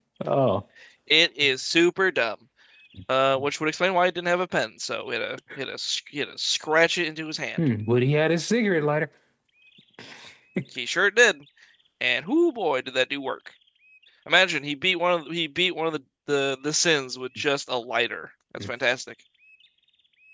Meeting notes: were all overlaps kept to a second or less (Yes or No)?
Yes